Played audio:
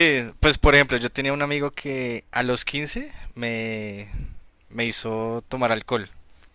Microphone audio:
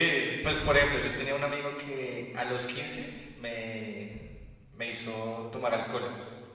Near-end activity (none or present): none